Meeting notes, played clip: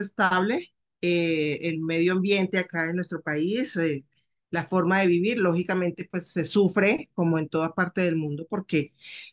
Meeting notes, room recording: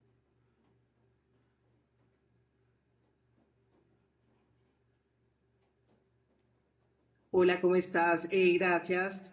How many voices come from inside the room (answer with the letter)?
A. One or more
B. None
A